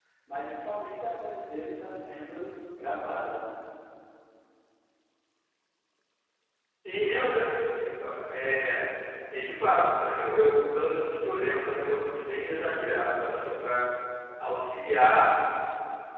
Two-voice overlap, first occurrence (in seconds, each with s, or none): none